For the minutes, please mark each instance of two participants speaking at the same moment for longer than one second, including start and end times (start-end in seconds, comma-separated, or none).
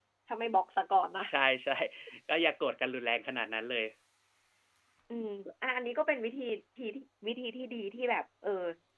none